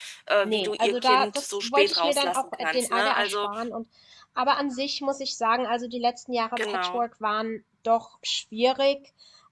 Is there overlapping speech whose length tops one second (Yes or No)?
Yes